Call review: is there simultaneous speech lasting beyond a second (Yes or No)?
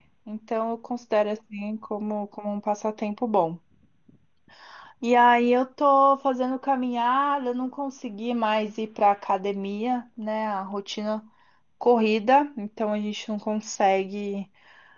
No